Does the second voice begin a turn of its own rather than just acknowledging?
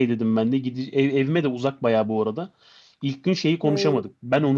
No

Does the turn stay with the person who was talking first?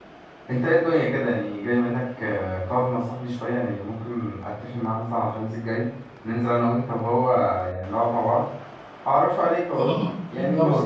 No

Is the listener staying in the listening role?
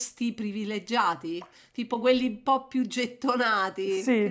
No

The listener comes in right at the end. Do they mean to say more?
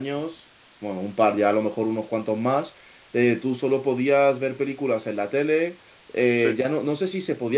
No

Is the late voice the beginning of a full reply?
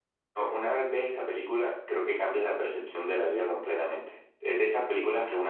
No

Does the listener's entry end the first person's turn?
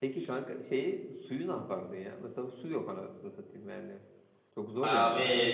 Yes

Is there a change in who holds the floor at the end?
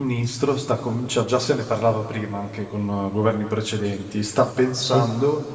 No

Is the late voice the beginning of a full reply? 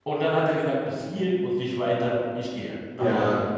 Yes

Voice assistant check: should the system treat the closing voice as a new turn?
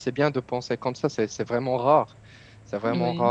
No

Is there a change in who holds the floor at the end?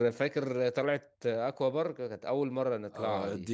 Yes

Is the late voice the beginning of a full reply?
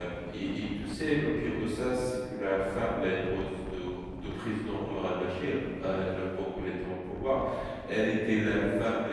No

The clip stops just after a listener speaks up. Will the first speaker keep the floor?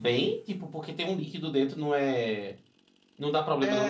No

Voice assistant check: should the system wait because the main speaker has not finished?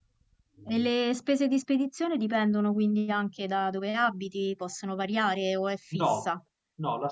No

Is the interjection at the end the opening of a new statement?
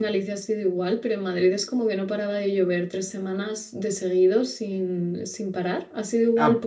Yes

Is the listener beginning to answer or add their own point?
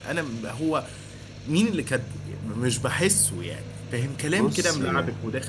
No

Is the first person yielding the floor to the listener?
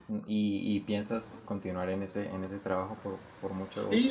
Yes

